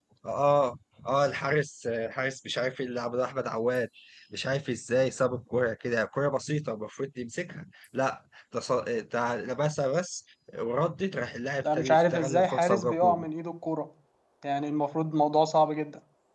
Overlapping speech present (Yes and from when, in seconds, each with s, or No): Yes, from 11.6 s